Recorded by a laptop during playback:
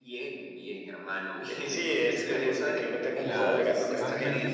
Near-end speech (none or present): present